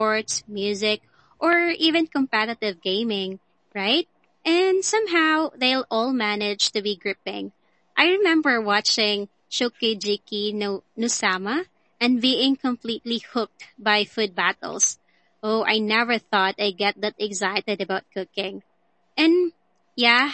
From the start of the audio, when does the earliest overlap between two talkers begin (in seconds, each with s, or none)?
none